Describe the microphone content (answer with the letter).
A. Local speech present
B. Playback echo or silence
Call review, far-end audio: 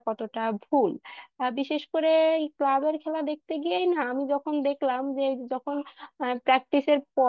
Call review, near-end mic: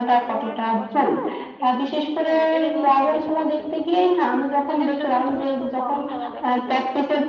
A